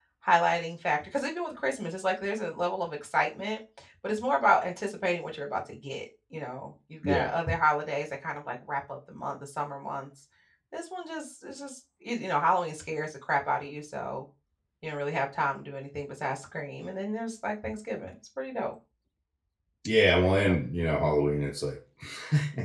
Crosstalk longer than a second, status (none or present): none